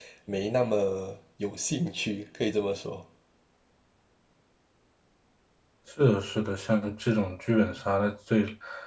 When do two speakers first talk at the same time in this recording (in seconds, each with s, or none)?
none